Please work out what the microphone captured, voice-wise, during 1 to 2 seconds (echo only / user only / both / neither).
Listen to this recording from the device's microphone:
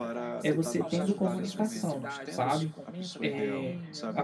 both